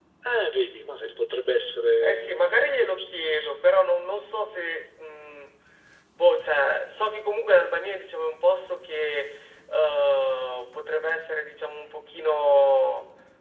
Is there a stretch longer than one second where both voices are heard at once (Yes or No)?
Yes